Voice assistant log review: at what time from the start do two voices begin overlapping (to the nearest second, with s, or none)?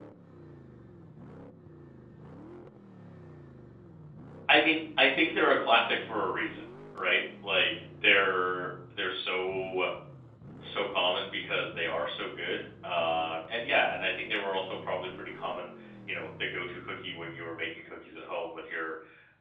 none